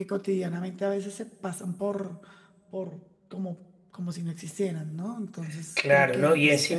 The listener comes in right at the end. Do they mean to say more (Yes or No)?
Yes